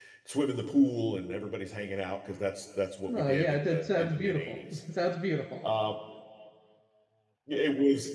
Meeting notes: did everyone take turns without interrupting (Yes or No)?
No